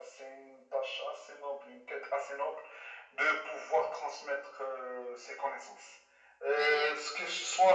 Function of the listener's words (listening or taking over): listening